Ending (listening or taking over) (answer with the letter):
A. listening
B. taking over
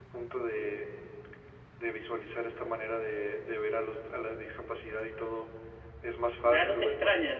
B